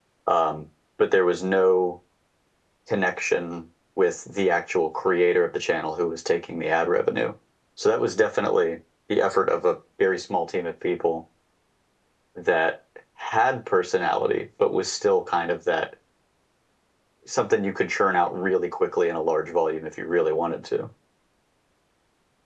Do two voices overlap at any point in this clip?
No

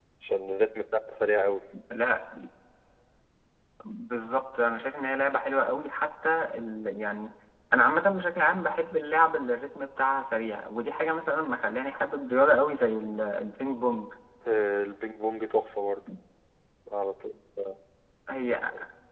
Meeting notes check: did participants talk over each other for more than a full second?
No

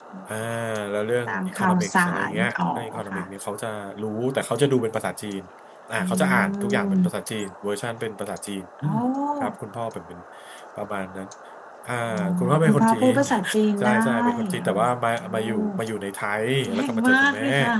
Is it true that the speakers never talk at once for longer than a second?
No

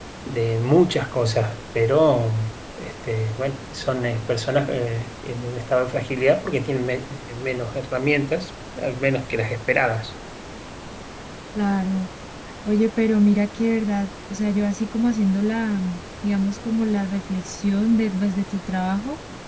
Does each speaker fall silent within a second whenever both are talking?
Yes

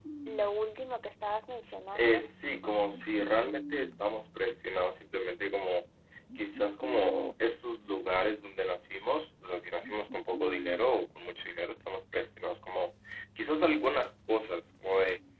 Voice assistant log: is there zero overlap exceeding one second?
Yes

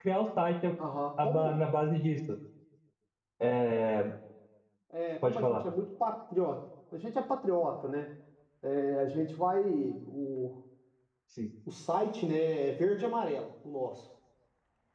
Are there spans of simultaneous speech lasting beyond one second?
No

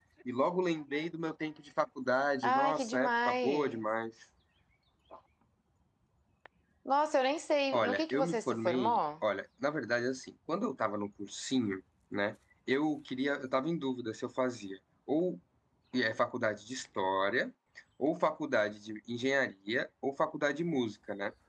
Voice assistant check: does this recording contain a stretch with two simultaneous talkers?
Yes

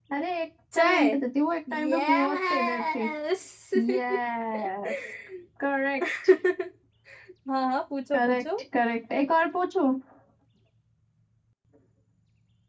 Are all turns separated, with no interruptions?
No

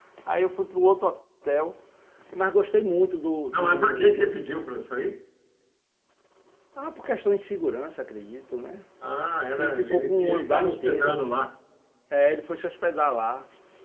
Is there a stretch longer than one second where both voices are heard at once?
Yes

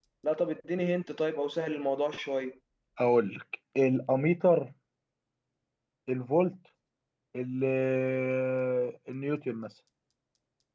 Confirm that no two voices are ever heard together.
Yes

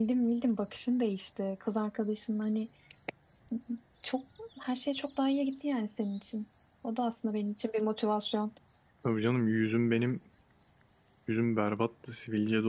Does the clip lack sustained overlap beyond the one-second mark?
Yes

